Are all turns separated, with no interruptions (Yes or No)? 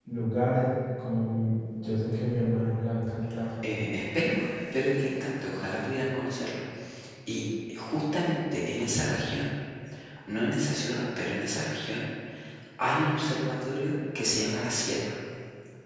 Yes